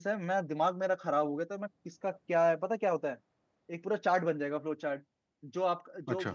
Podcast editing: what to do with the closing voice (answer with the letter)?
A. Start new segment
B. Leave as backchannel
B